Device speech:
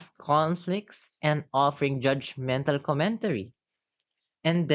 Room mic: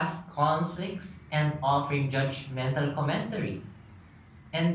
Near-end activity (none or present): none